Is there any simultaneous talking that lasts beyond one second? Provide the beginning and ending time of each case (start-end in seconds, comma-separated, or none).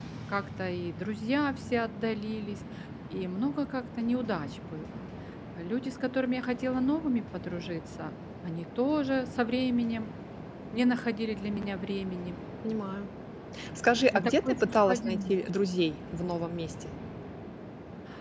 14.1-15.4